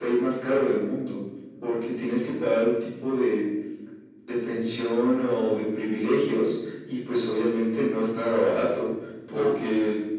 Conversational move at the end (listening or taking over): listening